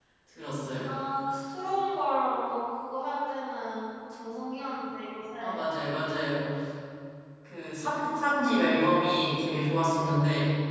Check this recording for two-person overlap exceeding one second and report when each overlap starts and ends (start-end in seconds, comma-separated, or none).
none